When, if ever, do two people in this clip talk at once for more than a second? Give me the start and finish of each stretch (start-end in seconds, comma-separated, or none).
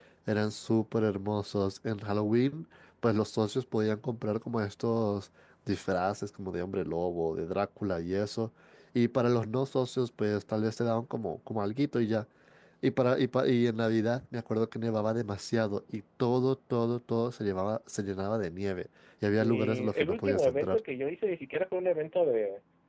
19.4-20.8